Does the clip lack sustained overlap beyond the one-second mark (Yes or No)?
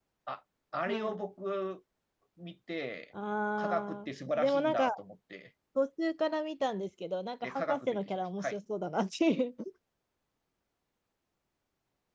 No